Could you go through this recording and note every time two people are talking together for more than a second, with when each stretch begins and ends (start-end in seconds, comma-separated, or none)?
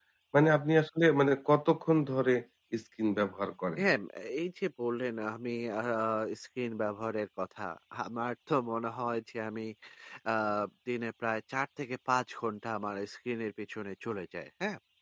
none